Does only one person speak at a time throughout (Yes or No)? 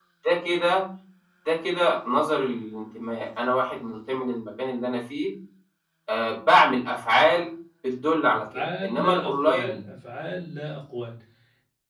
No